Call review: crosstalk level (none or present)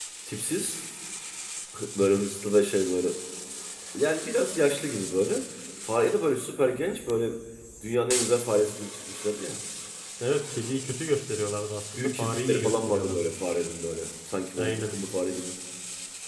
present